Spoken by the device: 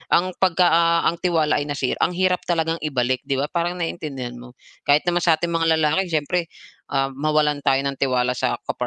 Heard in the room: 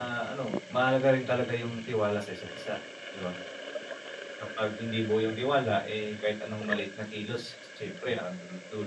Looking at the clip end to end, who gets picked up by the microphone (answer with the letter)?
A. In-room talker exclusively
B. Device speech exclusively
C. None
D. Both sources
A